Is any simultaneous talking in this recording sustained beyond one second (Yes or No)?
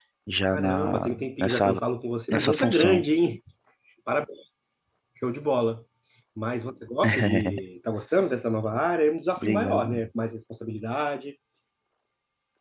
Yes